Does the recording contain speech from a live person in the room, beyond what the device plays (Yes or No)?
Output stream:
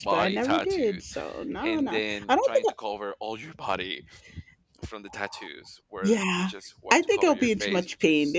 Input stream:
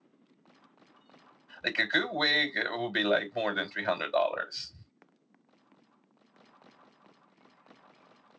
Yes